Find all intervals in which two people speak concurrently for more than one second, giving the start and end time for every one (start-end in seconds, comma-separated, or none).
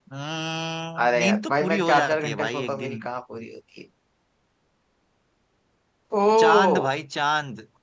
1.0-3.0